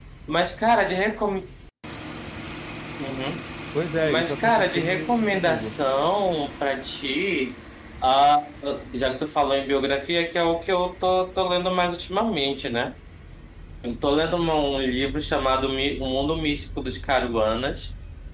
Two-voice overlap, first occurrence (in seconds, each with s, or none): 4.0 s